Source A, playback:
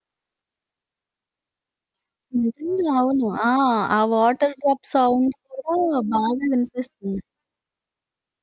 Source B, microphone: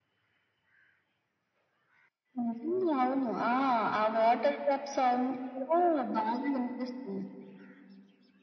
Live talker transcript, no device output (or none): none